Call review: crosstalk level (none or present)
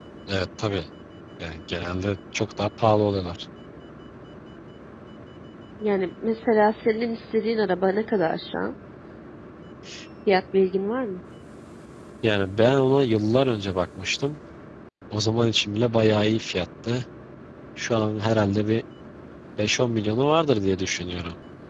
none